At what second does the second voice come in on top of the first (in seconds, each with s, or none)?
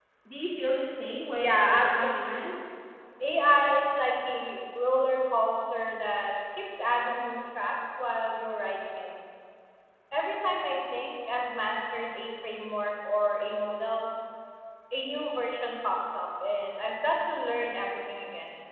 1.4 s